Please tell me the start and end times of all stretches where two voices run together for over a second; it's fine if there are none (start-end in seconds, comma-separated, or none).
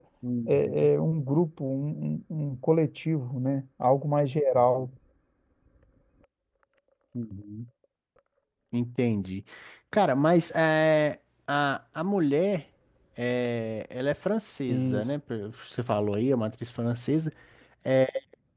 none